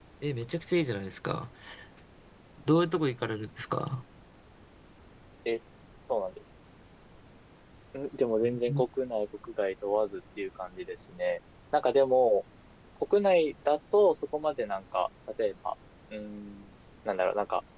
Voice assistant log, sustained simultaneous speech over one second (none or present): none